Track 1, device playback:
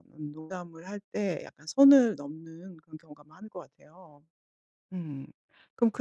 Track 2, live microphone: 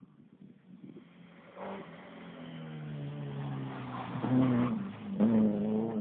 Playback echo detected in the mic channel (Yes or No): No